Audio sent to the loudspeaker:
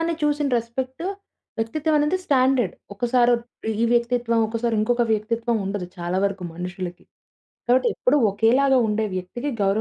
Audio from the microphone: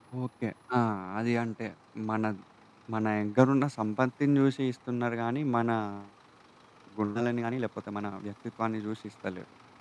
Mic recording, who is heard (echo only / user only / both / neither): user only